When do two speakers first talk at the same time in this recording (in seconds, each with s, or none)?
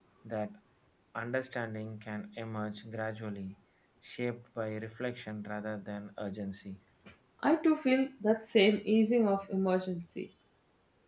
none